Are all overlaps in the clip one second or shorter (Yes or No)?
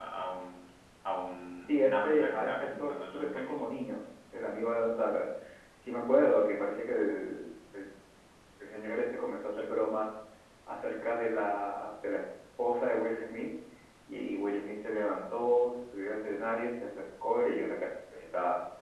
No